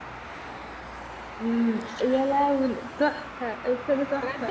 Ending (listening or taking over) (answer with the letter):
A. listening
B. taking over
B